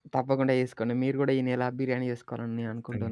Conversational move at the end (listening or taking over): taking over